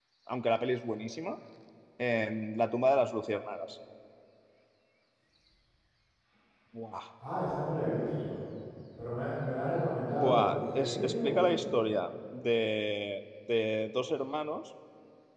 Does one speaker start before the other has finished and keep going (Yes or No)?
Yes